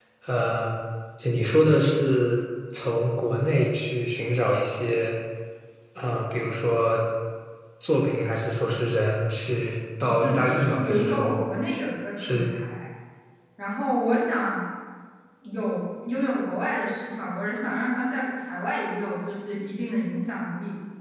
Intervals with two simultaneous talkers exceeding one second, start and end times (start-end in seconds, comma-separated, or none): 10.0-11.4